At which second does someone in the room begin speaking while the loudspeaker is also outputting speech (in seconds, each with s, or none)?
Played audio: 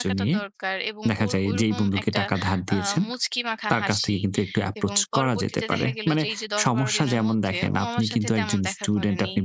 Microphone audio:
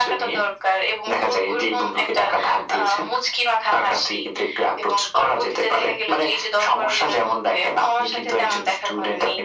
none